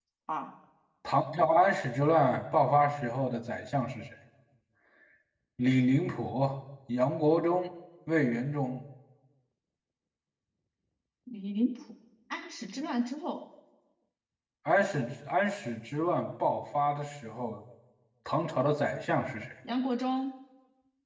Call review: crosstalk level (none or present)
none